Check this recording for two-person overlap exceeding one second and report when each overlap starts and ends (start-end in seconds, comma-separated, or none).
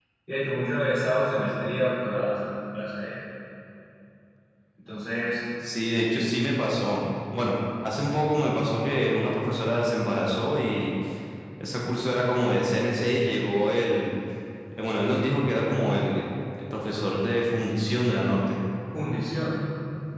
none